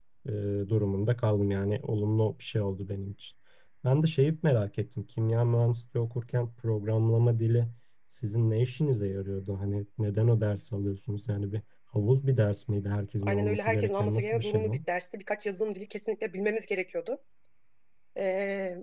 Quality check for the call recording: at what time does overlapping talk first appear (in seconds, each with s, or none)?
13.2 s